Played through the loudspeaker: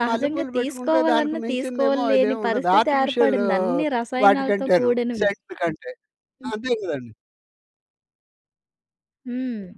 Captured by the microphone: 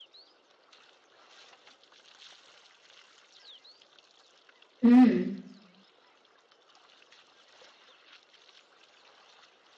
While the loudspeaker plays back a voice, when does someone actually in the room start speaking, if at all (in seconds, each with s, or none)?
4.8 s